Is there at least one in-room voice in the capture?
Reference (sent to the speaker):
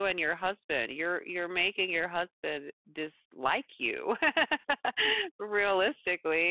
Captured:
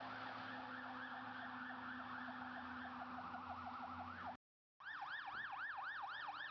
No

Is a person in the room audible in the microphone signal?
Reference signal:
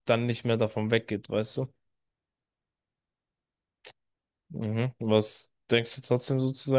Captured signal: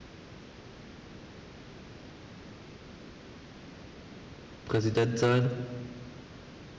Yes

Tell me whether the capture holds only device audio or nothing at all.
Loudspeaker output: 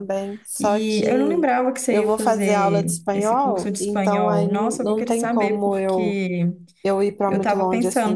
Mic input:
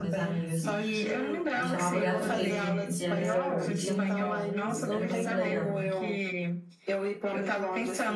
No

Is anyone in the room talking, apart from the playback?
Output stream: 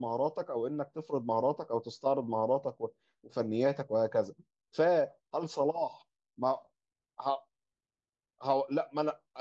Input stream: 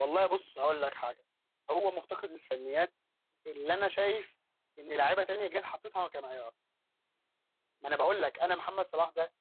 Yes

